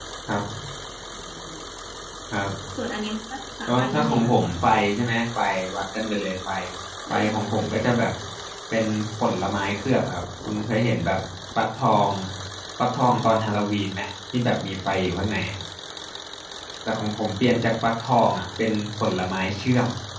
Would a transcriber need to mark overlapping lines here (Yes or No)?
Yes